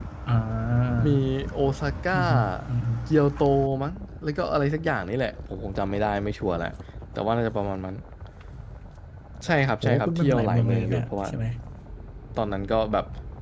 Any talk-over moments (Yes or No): Yes